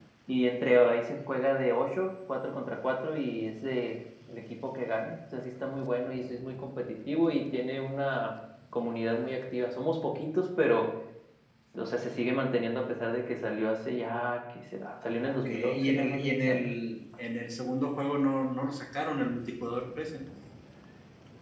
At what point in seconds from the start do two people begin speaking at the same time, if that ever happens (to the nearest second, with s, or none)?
15 s